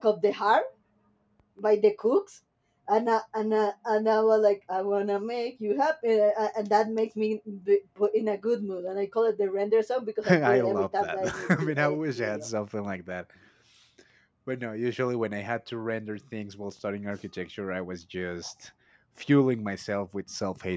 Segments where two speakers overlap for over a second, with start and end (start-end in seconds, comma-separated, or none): 10.3-12.5